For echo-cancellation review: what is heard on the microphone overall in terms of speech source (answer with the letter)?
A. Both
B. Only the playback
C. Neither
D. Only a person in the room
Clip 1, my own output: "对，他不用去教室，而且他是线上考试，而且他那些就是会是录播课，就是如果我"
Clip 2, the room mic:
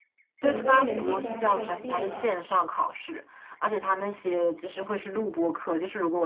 A